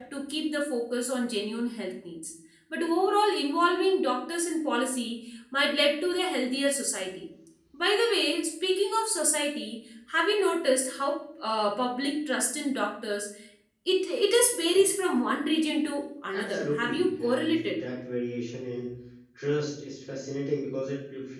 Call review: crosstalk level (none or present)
present